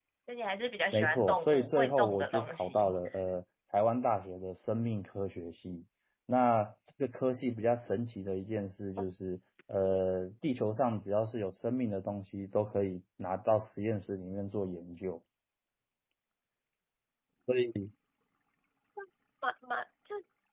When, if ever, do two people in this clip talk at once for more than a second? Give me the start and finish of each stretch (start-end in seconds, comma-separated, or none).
0.9-3.0